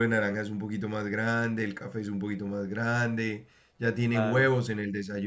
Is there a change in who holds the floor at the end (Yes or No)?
No